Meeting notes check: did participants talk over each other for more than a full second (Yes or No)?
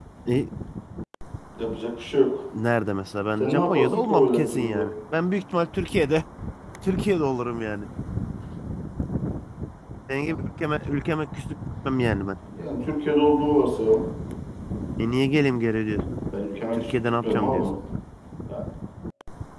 Yes